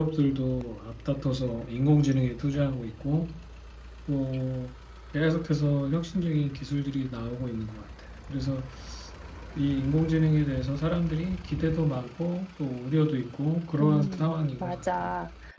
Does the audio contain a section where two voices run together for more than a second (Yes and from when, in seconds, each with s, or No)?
Yes, from 13.8 s